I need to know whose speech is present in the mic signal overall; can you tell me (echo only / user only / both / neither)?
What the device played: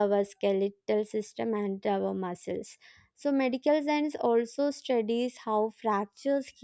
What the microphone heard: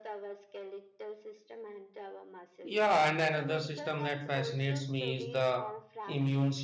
both